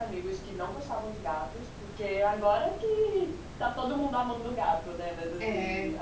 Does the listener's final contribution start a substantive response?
No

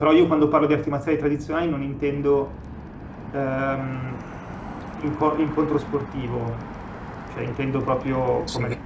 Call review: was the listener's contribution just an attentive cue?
No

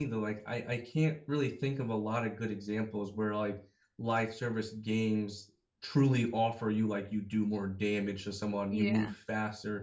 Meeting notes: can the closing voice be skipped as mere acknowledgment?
Yes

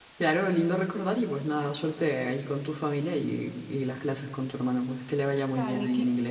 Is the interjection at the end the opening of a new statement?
Yes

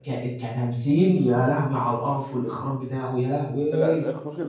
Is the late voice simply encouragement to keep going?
No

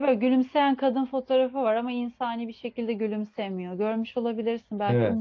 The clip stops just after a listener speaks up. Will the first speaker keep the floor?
No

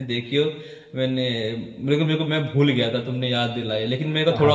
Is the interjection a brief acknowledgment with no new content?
No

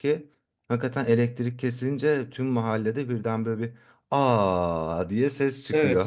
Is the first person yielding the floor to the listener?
Yes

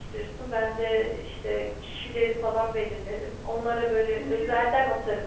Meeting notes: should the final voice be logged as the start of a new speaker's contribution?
No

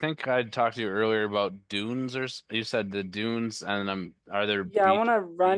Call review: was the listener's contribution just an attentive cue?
No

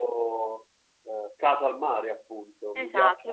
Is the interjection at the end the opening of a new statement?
Yes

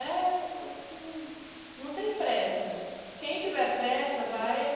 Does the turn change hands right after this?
No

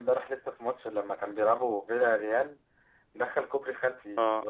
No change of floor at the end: Yes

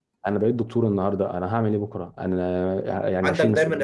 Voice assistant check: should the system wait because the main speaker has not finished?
No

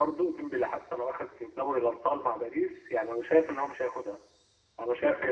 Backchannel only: Yes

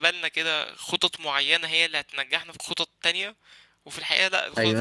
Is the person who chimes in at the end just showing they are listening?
No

